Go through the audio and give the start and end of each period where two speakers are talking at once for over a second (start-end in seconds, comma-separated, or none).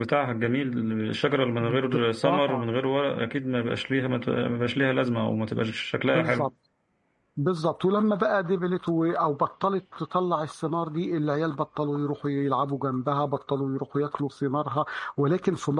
none